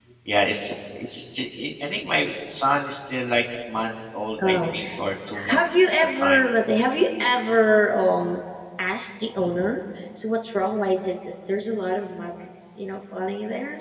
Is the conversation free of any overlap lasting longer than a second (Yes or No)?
Yes